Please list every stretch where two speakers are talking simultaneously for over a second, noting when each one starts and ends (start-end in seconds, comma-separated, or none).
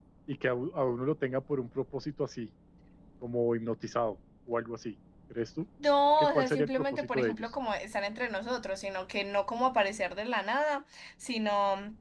6.2-7.5